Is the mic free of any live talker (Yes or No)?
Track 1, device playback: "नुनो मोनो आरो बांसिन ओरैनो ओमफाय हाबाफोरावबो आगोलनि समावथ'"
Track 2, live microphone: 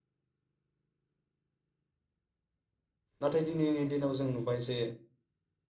No